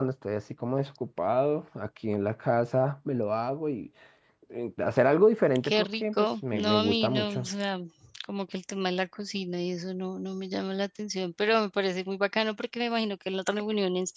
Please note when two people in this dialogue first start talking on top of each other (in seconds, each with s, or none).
5.6 s